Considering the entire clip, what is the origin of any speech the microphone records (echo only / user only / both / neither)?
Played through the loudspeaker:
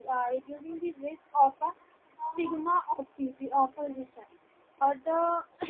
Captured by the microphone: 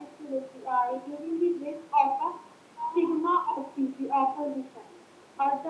echo only